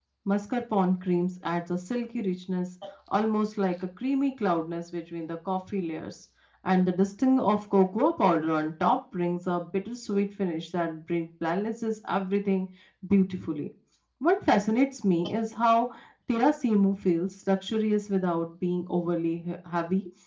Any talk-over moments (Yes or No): No